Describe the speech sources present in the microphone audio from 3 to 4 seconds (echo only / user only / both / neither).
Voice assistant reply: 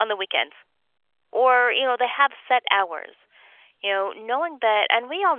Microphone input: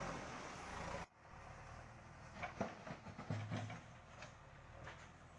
neither